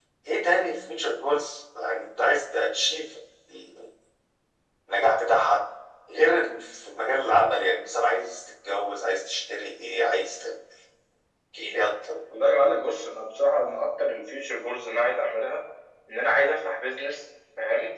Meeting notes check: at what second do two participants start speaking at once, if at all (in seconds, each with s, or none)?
none